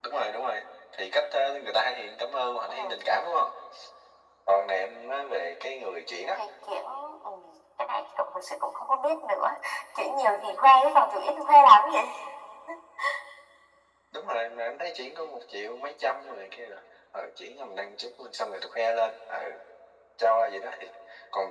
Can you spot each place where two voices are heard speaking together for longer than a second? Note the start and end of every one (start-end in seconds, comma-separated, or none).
none